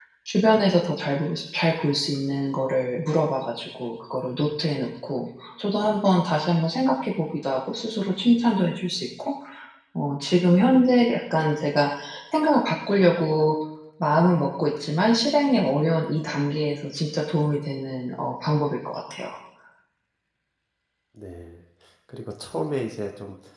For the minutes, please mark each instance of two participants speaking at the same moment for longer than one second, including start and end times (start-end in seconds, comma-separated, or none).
none